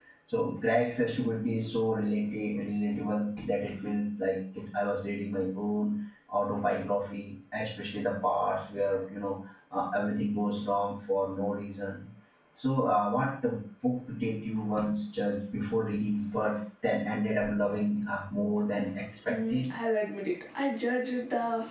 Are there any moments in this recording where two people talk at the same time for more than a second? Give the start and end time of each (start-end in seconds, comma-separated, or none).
none